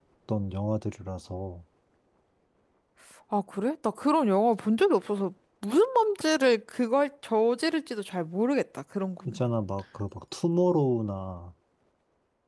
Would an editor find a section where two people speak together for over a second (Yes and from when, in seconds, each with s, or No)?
No